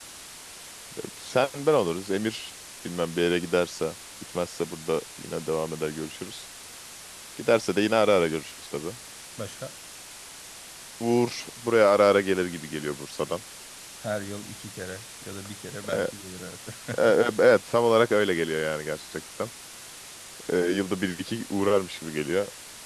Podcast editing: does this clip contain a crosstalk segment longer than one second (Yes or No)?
No